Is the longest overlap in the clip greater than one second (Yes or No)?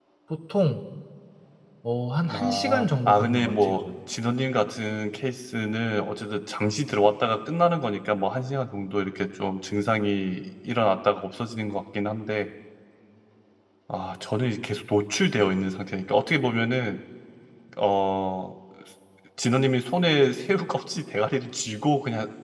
Yes